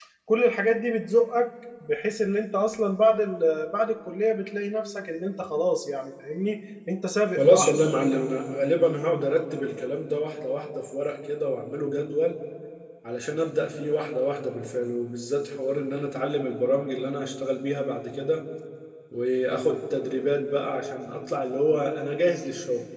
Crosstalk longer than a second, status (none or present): none